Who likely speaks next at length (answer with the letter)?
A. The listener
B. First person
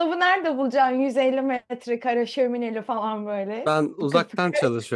A